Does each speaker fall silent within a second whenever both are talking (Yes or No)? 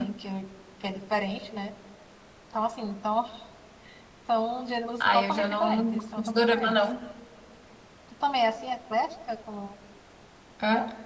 No